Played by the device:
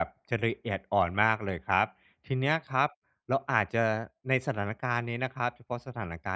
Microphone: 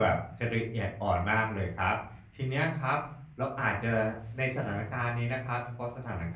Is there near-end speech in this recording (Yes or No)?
No